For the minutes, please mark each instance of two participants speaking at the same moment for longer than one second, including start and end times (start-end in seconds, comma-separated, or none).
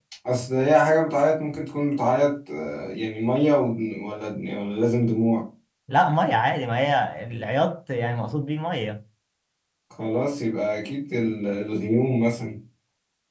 none